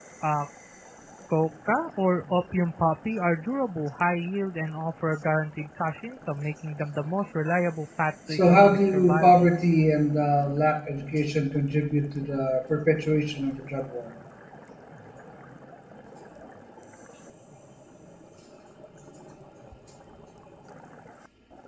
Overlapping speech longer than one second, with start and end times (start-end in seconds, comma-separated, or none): 8.3-9.5